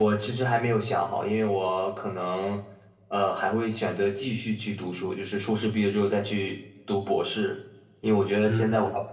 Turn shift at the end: No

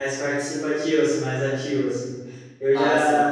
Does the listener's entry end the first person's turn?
No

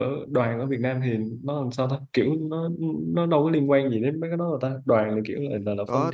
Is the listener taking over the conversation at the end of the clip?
Yes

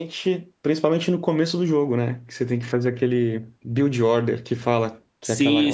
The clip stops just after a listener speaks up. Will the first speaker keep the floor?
No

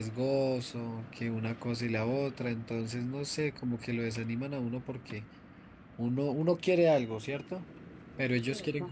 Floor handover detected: No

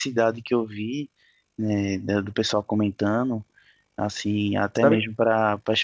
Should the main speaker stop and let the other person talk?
No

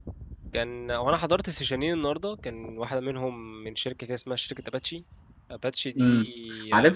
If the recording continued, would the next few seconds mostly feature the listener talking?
Yes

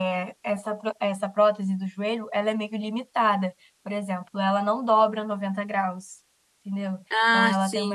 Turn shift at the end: No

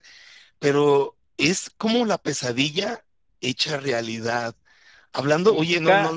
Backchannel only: Yes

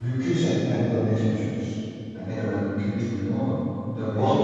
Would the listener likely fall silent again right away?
No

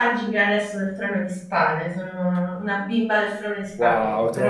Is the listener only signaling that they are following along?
No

